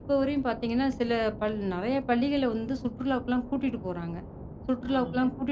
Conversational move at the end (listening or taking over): listening